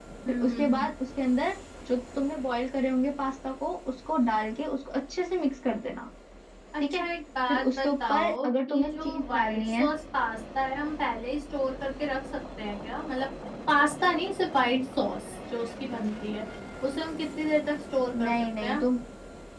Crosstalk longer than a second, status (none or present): present